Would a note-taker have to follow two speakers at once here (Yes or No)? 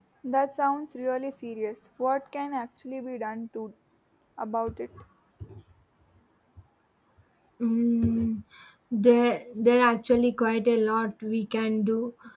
No